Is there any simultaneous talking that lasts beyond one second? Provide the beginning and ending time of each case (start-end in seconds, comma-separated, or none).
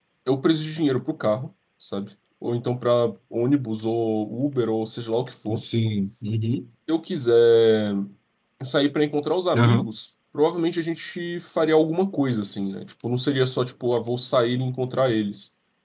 none